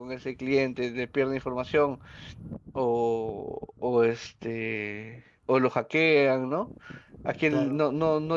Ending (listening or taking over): listening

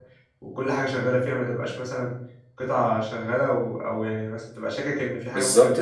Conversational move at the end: taking over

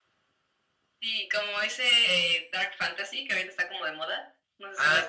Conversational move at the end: taking over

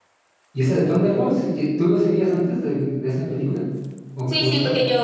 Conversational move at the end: taking over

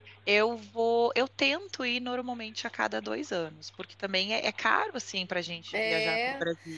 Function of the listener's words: taking over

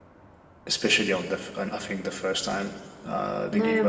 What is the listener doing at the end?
taking over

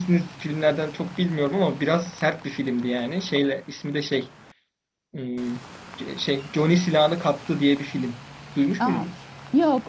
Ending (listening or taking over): taking over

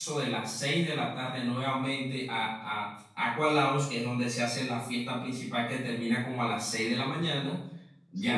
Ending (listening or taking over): listening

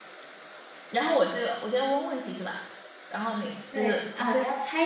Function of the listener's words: taking over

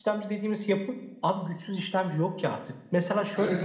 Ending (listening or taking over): taking over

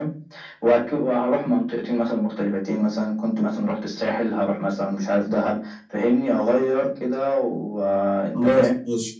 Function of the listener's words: taking over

